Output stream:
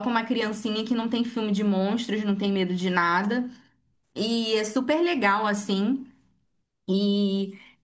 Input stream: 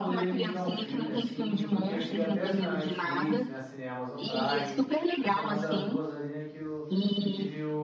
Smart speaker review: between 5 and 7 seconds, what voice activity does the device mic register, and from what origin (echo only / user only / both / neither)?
both